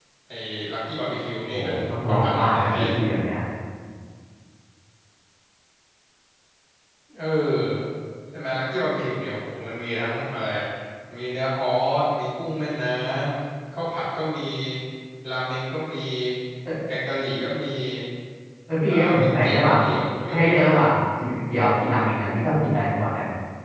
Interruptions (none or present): present